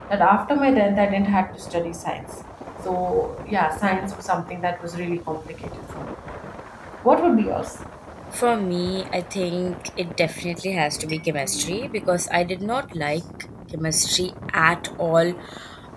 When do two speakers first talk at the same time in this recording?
none

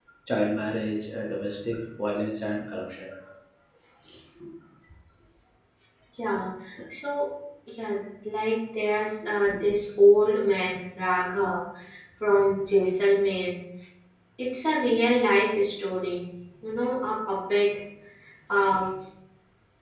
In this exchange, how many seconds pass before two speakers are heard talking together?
none

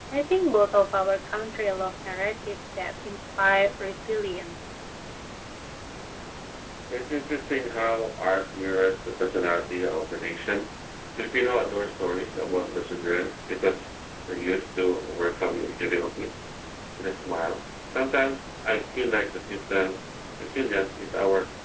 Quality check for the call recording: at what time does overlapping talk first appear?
none

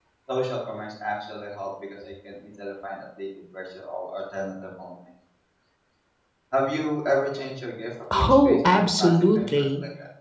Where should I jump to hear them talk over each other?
8 s

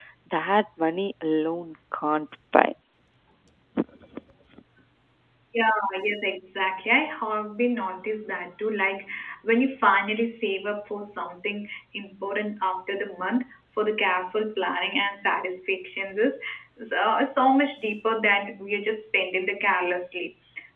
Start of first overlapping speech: none

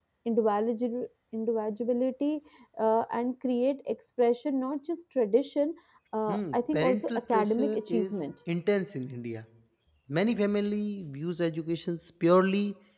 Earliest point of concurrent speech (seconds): 6 s

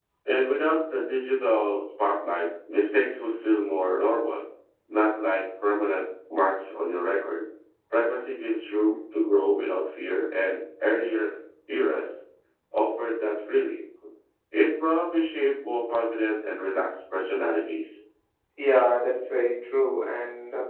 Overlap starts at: none

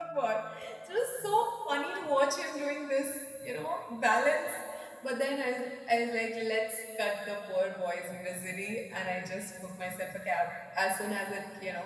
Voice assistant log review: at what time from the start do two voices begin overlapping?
none

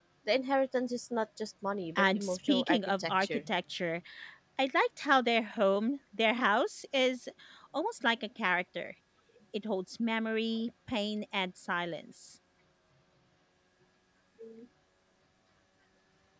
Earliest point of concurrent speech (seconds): 2 s

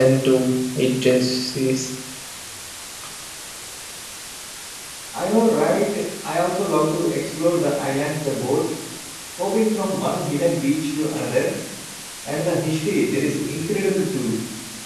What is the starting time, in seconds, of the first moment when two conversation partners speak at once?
none

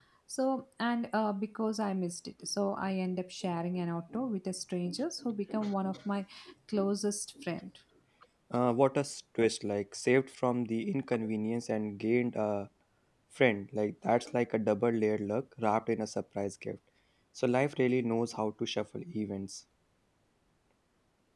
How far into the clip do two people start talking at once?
none

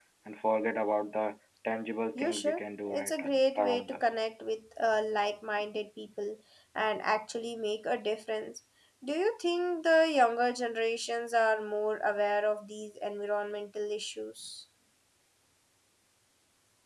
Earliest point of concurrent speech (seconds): 2 s

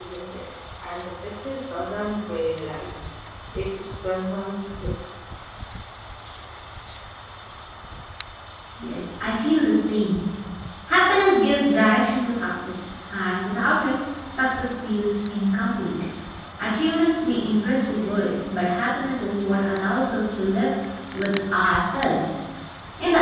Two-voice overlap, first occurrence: none

